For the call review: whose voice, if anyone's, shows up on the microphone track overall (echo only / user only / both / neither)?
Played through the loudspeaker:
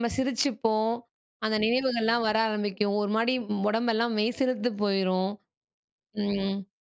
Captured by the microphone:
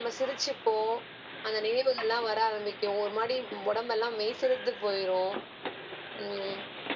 echo only